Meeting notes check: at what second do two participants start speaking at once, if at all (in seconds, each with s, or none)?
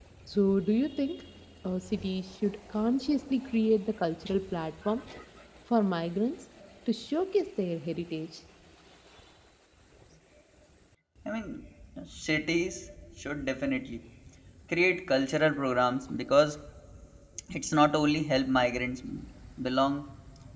none